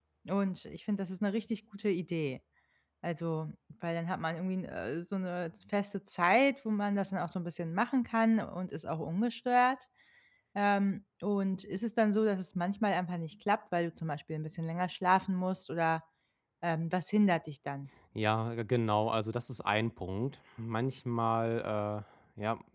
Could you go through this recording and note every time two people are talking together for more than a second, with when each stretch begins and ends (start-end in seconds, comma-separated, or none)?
none